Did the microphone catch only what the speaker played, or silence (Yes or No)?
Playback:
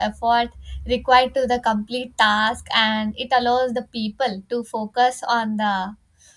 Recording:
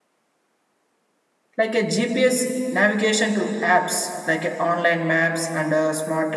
No